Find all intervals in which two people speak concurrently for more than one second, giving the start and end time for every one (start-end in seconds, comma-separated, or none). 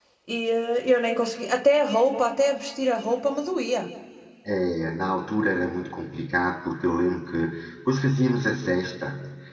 none